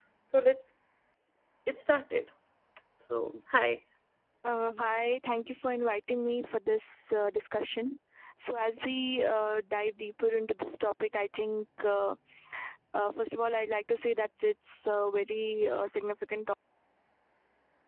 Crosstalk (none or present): none